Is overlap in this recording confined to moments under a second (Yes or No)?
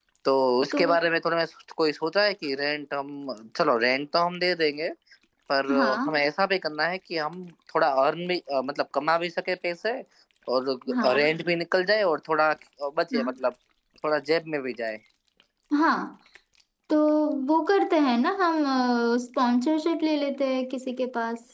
Yes